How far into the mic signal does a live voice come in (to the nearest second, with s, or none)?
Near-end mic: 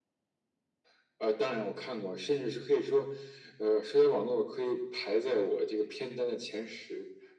none